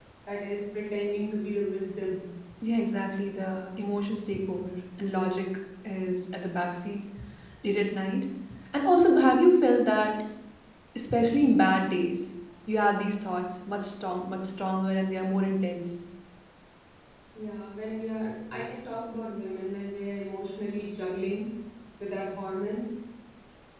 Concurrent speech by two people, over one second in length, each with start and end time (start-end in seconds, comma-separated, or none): none